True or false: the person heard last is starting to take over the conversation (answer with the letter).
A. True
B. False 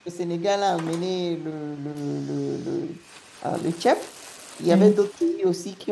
B